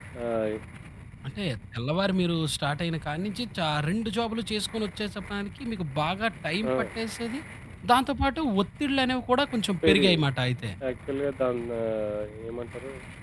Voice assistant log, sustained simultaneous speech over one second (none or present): none